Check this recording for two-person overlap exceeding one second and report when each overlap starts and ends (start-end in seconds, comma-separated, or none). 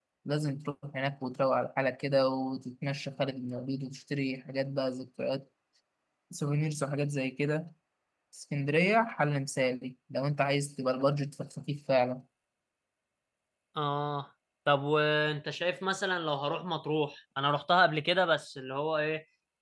none